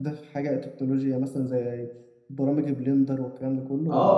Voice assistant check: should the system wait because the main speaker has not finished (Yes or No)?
No